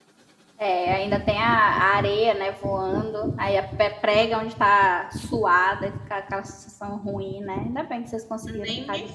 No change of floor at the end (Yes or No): No